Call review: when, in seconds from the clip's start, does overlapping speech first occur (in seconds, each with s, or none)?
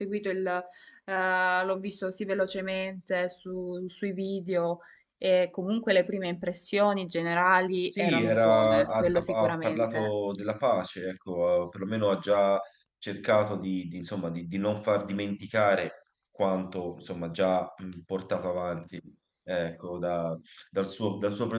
7.9 s